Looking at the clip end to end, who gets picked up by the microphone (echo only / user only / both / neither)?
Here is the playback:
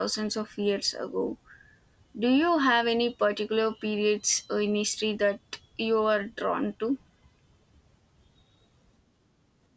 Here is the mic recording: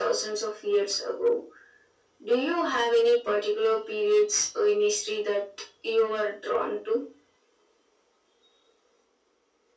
echo only